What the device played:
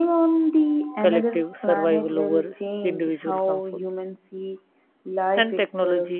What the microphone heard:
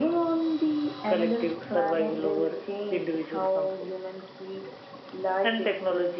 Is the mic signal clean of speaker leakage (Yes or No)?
No